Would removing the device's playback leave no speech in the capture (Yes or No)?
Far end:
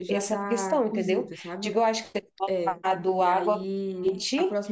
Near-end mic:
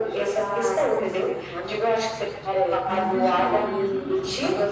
No